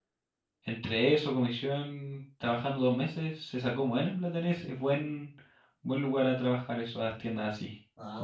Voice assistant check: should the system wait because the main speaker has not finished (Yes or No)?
No